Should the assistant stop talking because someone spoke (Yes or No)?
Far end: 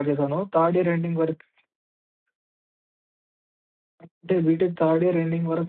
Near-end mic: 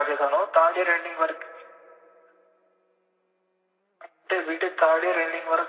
No